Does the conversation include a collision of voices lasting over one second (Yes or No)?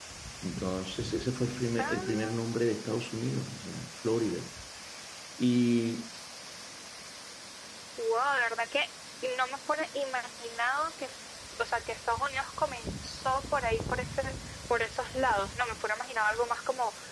No